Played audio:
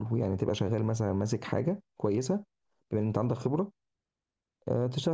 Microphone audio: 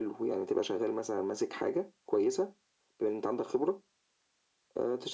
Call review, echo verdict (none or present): present